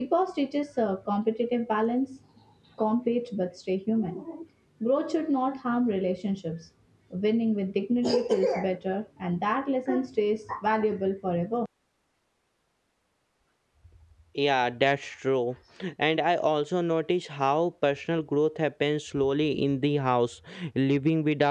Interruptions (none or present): none